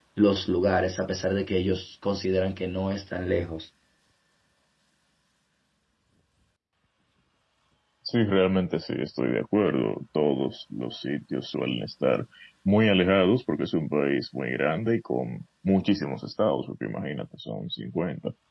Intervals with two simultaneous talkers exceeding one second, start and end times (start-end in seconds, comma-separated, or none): none